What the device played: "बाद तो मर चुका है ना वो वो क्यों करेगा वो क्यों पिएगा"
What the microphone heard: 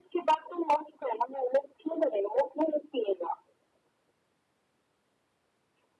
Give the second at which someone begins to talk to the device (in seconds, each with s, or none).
none